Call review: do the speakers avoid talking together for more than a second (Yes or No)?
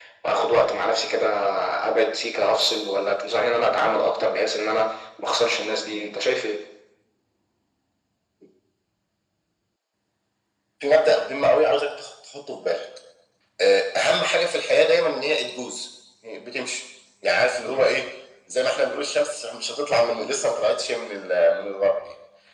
Yes